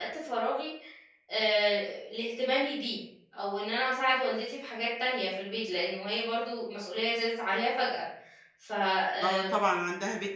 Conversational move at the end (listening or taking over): taking over